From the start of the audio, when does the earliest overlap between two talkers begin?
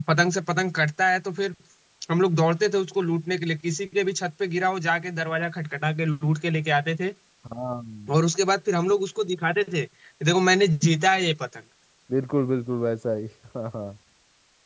none

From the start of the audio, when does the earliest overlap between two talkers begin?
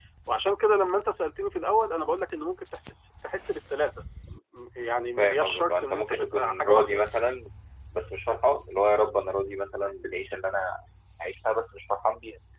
5.2 s

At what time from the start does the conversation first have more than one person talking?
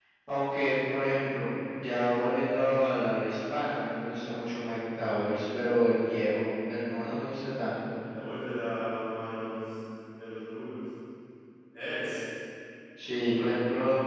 none

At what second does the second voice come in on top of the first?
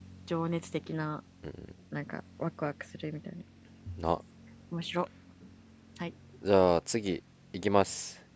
none

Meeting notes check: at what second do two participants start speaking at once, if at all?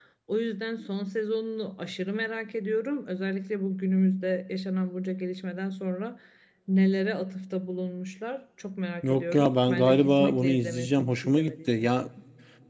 9.0 s

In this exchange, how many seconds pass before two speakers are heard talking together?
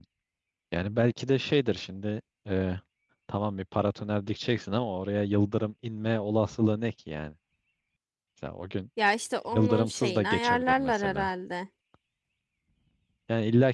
9.5 s

